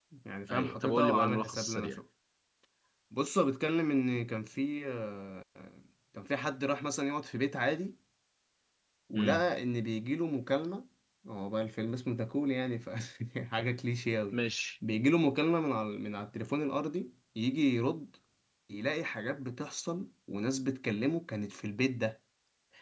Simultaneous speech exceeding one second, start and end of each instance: 0.5-2.0

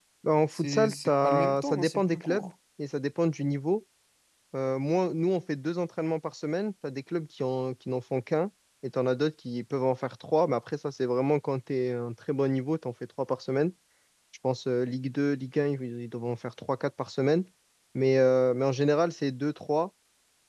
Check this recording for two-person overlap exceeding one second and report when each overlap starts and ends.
0.5-2.5

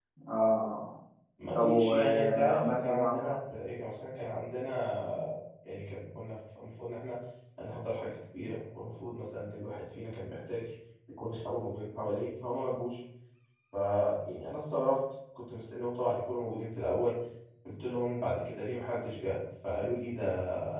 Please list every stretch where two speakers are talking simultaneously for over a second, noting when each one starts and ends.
1.6-3.4

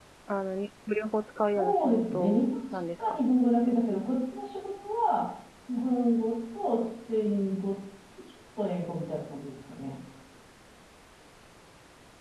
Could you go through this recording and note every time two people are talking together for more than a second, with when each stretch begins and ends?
1.6-3.0

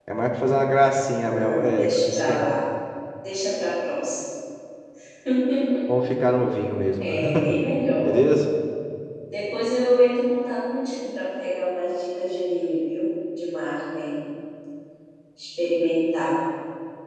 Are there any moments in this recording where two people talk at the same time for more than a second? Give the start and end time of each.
1.2-2.5

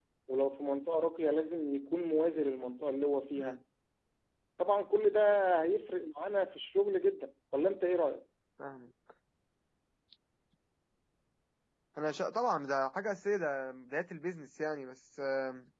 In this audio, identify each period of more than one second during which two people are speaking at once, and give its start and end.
none

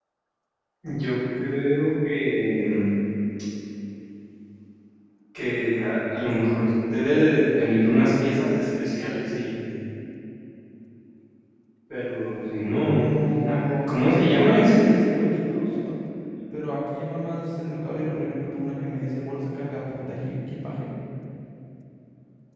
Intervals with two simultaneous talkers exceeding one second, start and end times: 12.9-14.8

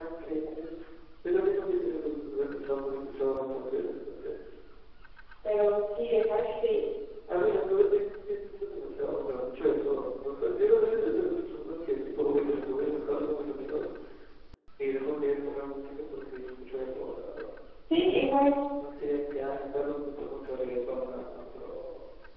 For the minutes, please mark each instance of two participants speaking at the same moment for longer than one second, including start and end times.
none

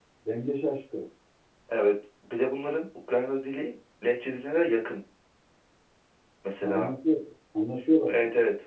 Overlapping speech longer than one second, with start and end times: none

